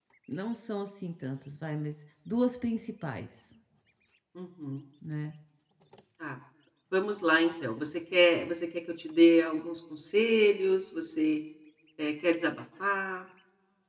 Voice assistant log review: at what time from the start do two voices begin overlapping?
none

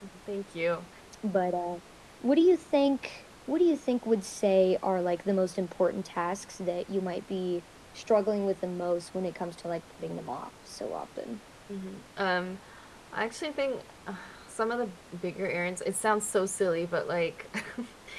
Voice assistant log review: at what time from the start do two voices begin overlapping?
none

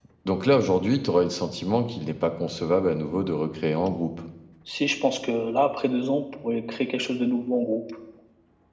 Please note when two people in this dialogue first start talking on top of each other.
none

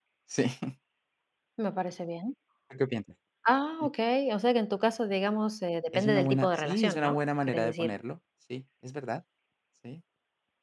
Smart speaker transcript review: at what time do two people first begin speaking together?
5.9 s

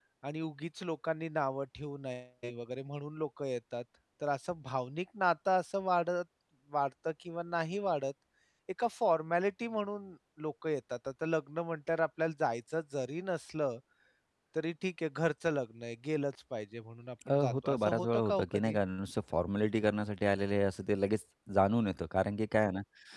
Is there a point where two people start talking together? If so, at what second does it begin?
17.2 s

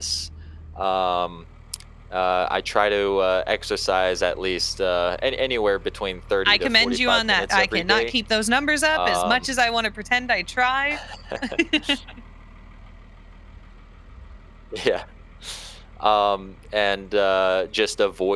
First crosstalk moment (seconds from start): 6.5 s

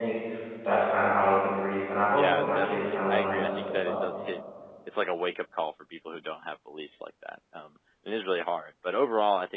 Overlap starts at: 2.1 s

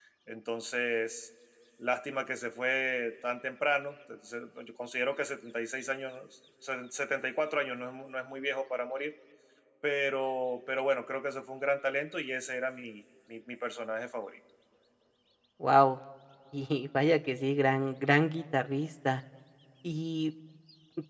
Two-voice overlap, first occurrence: none

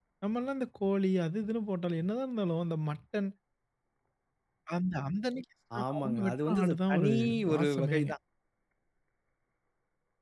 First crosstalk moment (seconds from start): 5.7 s

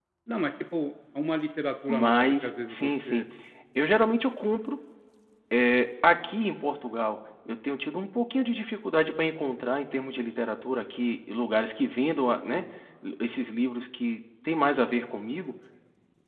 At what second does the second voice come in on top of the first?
1.9 s

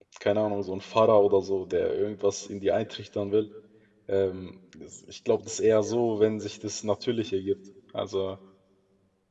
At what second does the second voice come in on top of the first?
none

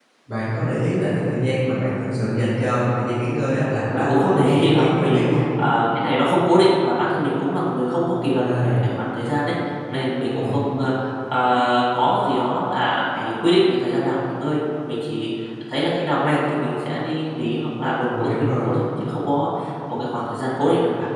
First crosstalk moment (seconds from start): 3.9 s

